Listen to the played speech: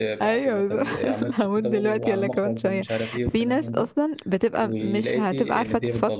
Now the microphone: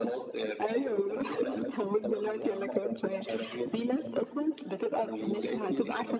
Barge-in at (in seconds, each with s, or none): none